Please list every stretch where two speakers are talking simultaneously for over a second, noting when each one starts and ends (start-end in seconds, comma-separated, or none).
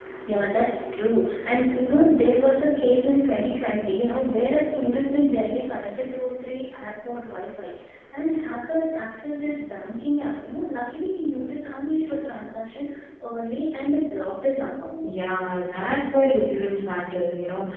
none